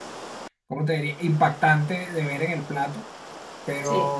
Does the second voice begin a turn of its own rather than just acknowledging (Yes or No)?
No